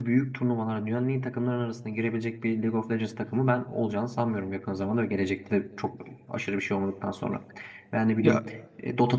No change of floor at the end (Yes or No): Yes